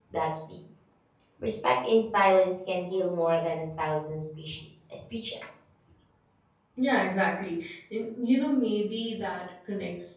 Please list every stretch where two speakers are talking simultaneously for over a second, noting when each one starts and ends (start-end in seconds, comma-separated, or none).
none